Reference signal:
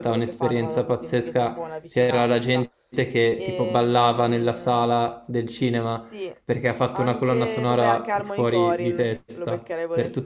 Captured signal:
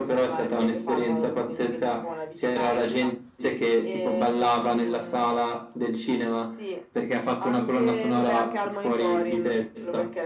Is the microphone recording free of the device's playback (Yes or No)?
No